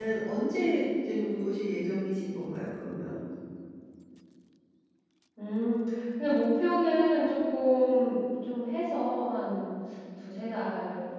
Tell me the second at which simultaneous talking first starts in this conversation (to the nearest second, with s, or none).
none